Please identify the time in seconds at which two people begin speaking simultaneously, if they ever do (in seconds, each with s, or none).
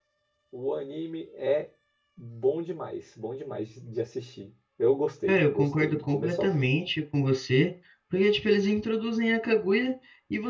5.3 s